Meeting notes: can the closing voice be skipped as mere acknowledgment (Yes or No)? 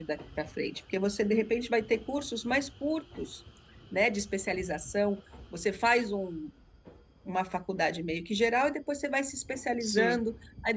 Yes